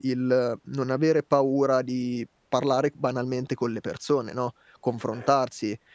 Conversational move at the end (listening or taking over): listening